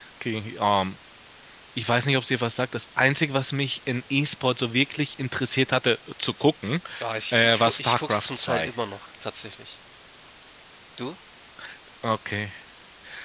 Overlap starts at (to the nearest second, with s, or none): 7 s